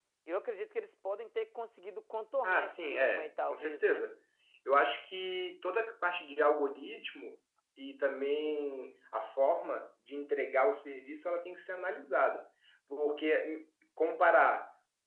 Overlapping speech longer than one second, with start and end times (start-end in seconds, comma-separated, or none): 2.4-4.0